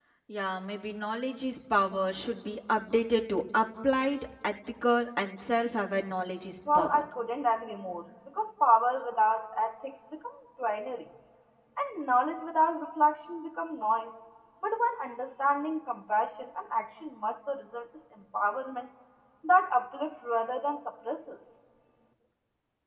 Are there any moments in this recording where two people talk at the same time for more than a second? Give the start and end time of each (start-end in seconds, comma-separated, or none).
none